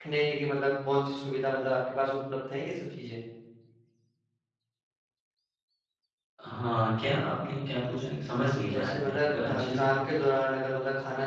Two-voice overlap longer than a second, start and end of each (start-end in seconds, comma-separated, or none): 8.7-9.9